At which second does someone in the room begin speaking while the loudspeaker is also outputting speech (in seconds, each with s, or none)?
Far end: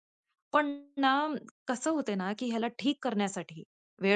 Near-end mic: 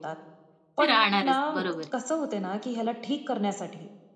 0.9 s